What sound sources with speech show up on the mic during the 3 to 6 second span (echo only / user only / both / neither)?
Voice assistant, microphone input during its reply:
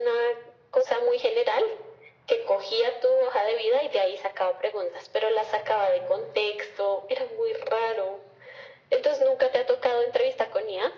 echo only